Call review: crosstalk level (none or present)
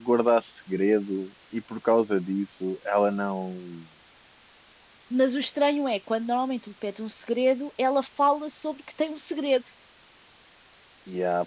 none